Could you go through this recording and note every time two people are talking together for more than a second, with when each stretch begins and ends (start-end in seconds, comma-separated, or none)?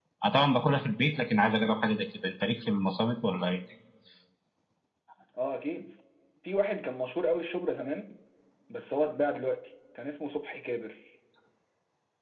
none